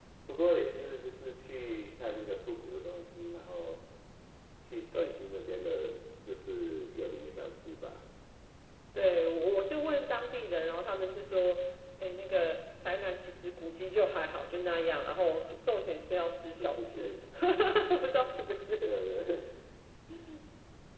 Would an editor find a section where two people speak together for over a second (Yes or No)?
No